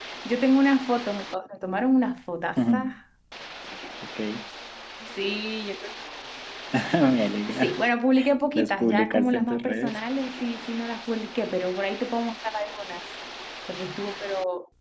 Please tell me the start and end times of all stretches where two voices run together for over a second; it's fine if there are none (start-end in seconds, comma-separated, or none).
8.6-10.0